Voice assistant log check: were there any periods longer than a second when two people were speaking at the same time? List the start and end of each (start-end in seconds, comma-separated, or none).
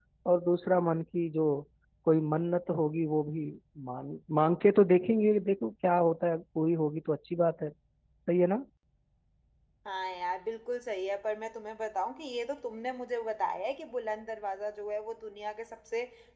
none